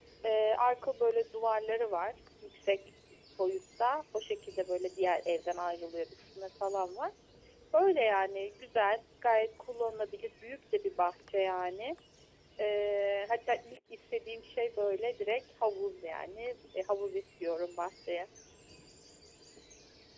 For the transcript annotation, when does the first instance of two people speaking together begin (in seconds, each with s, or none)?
none